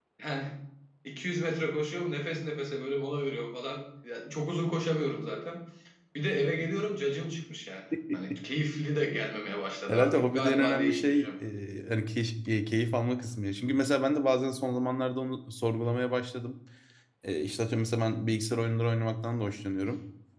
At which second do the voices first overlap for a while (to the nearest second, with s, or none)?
10 s